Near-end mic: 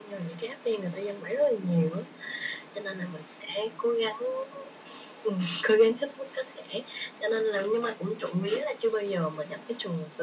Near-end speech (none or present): none